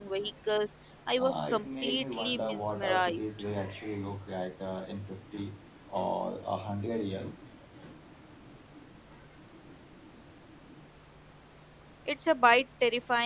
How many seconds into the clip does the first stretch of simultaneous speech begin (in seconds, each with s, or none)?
1.2 s